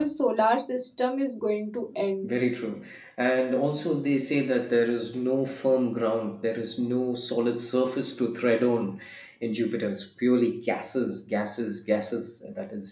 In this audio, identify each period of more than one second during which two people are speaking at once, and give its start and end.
none

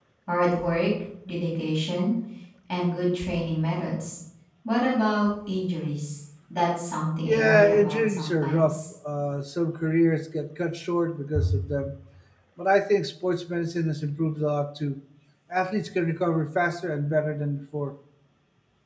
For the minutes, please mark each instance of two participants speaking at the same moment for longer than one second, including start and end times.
7.2-8.8

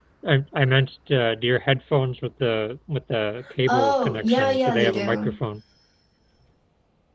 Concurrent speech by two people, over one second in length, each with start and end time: 3.7-5.3

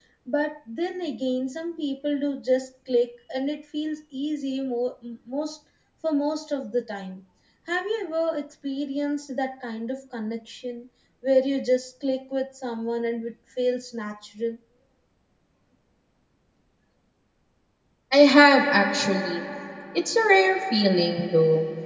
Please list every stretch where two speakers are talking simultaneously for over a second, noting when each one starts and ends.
none

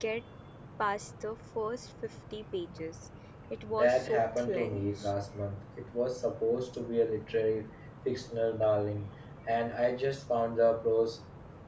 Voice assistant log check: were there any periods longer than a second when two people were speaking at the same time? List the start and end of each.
3.8-5.1

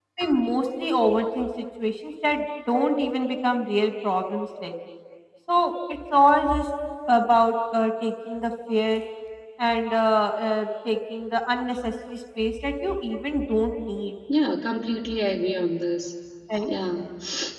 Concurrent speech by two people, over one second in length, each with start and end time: none

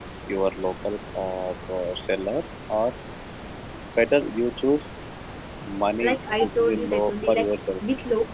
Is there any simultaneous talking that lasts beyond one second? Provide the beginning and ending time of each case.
6.1-7.5

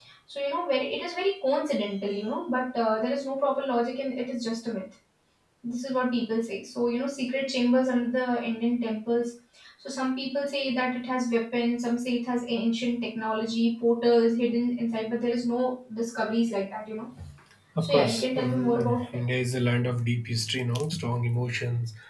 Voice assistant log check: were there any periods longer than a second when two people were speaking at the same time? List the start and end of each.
17.8-19.1

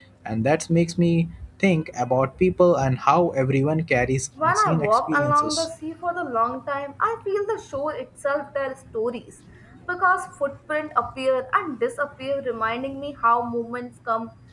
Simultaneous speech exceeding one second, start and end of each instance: 4.4-5.7

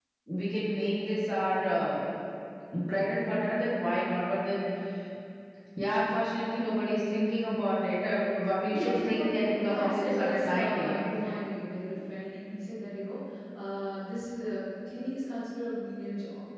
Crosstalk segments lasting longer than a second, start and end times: 9.7-11.0

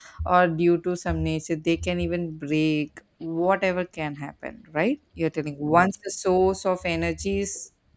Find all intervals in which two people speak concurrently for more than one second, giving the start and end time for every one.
none

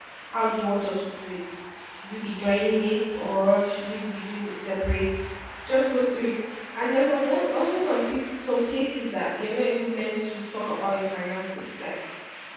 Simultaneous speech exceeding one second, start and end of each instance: none

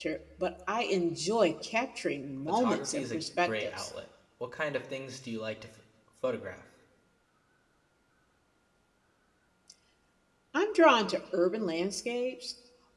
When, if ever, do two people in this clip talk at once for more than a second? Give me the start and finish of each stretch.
2.5-3.9

